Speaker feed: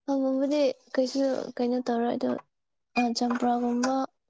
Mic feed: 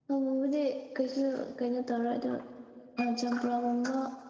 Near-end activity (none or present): none